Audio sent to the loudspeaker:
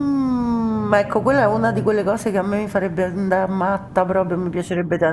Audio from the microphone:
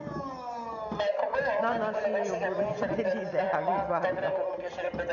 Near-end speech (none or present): present